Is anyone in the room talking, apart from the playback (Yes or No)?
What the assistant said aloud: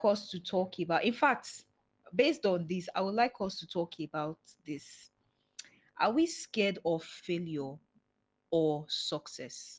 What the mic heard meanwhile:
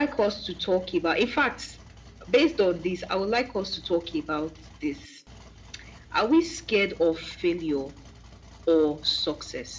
No